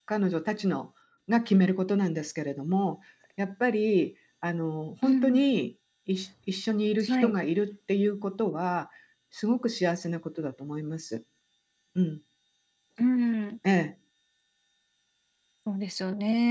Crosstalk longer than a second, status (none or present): none